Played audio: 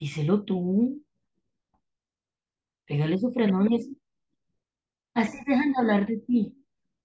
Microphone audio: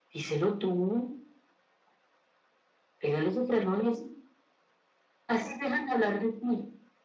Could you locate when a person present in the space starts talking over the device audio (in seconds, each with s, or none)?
none